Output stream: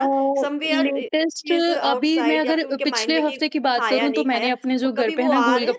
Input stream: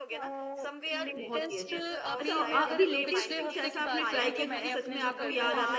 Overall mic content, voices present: both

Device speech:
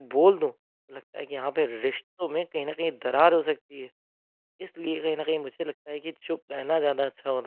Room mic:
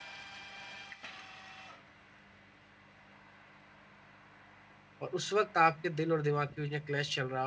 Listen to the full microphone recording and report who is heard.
user only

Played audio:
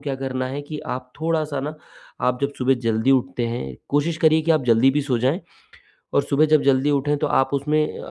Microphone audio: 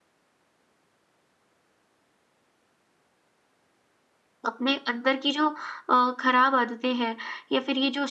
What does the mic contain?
user only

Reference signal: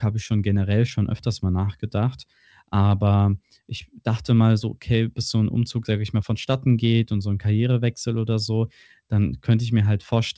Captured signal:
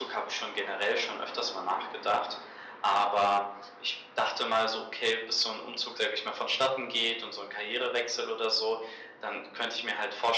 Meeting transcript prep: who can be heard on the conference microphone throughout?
echo only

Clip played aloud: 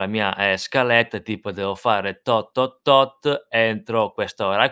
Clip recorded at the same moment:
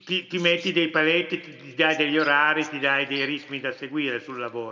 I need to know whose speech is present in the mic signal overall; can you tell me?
user only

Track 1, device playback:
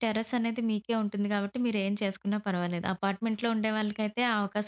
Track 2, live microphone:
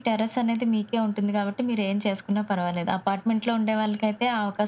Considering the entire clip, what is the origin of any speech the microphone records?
echo only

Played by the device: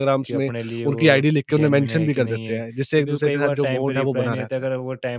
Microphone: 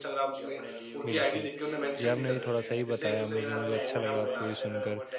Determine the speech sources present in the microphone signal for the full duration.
both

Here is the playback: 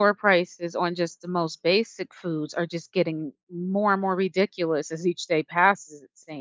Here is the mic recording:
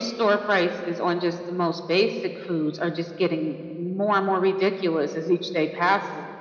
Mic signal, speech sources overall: echo only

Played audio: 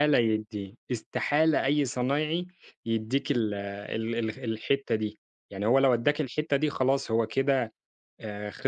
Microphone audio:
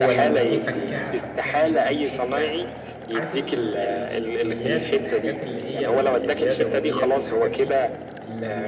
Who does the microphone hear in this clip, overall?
both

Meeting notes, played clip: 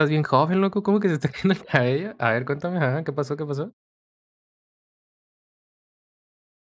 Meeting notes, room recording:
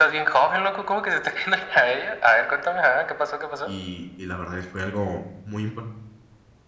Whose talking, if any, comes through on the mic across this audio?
both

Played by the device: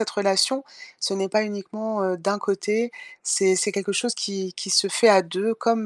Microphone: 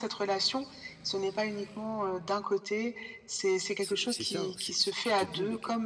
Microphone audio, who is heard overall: both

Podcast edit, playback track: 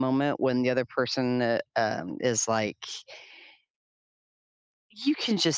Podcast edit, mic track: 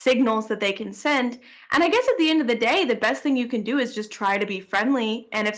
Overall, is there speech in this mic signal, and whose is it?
user only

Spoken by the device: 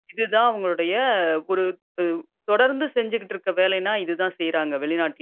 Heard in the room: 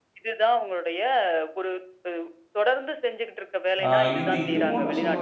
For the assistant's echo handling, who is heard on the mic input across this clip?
both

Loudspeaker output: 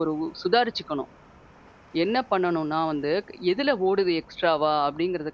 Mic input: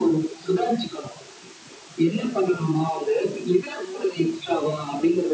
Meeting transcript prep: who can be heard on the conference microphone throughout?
echo only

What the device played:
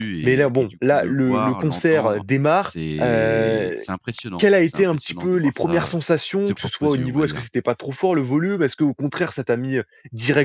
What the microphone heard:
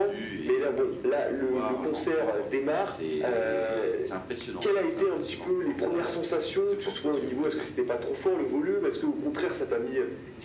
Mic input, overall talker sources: echo only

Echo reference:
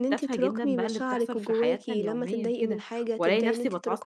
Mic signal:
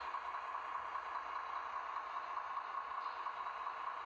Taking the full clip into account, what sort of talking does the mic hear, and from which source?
neither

